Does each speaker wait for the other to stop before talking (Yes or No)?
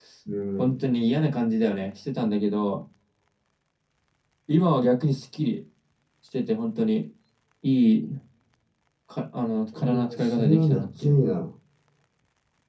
No